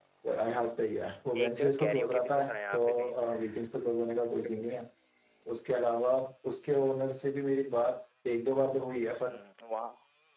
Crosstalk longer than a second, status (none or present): present